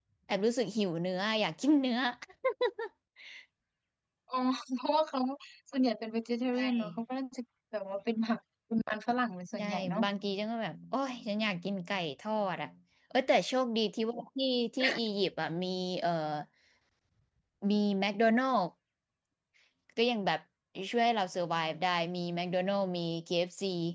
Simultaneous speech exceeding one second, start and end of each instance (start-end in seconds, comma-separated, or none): none